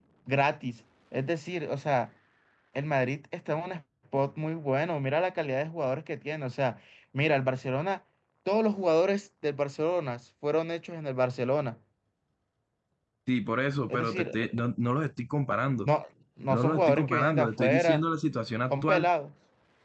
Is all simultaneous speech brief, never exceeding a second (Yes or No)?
No